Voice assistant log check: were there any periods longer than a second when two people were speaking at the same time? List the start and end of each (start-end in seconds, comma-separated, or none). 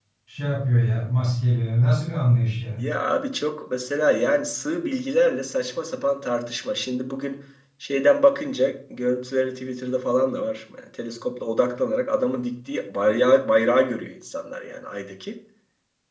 none